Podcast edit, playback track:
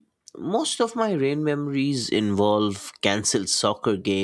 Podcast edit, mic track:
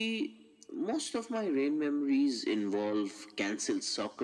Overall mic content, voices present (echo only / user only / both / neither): echo only